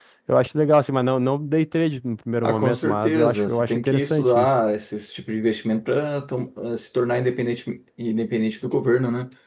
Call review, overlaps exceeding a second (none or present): present